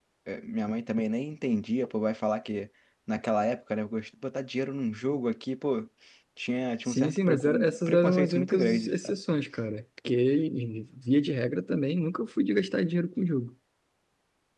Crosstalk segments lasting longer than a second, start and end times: 6.9-9.2

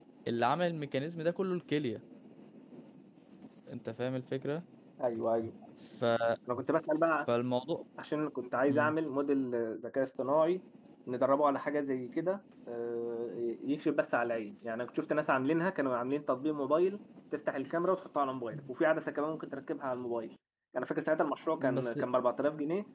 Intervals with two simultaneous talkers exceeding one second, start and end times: none

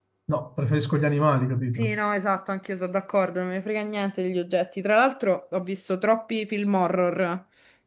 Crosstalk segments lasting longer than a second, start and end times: none

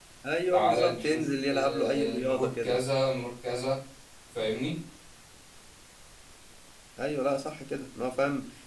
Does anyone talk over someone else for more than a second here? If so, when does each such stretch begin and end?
0.5-2.8

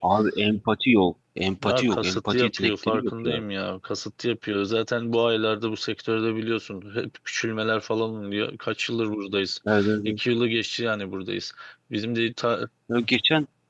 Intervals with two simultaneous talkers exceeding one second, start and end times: 1.6-3.4

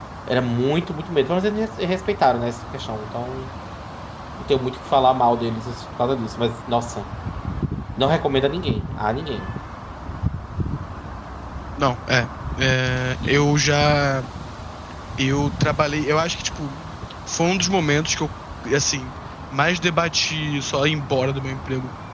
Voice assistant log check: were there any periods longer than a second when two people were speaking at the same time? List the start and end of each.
none

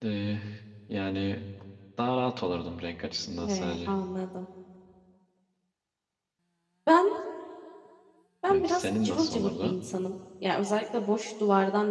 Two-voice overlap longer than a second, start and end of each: 8.5-9.8

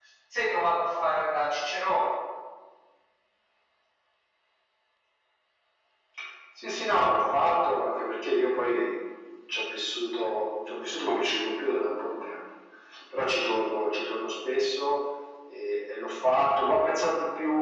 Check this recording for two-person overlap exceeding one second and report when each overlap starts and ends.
none

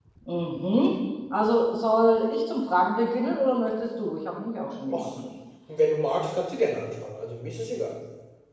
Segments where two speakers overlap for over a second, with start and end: none

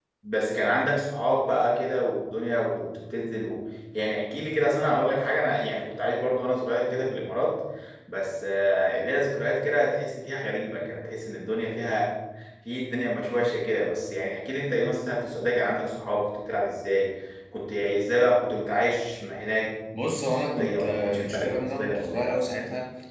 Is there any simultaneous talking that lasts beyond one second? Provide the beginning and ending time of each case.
20.3-22.2

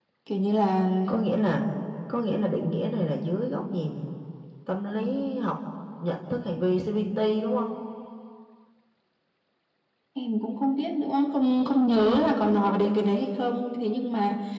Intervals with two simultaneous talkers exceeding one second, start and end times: none

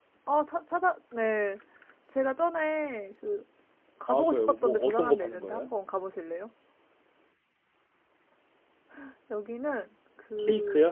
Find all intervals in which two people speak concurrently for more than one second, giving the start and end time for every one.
4.1-5.7

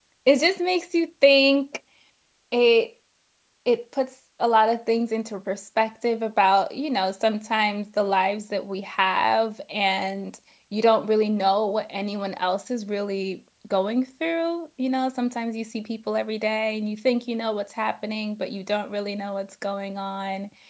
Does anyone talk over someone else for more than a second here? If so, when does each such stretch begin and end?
none

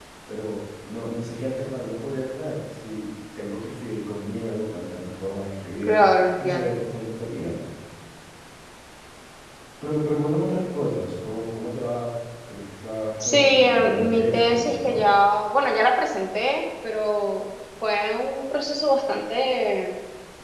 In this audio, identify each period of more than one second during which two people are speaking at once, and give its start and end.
13.2-15.0

